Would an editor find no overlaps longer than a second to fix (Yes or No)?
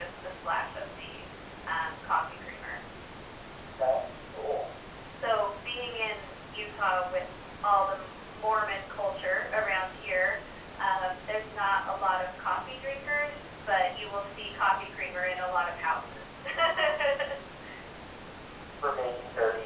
Yes